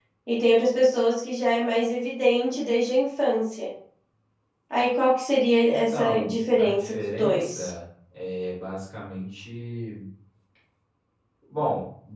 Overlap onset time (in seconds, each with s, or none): 5.7 s